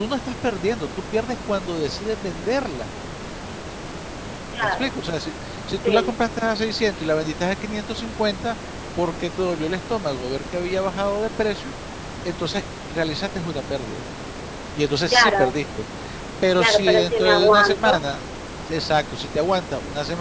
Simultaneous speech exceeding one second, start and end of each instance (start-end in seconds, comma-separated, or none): 16.6-18.0